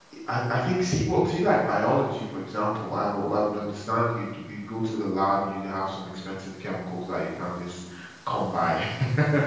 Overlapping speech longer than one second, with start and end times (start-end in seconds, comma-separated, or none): none